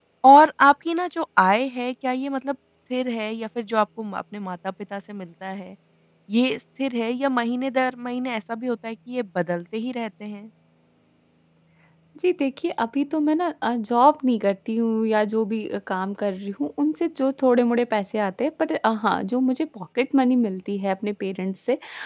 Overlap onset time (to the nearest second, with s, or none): none